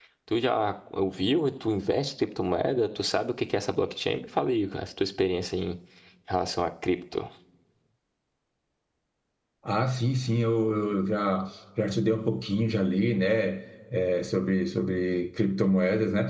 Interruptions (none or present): none